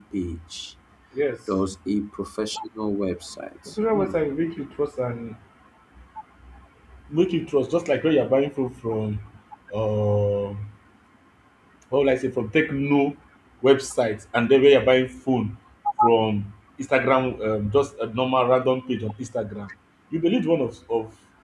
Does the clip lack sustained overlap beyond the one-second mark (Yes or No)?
Yes